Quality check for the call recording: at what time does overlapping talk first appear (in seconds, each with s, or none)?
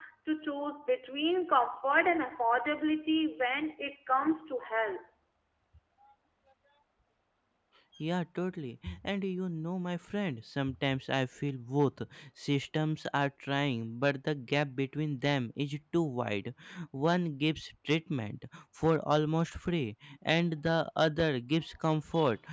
none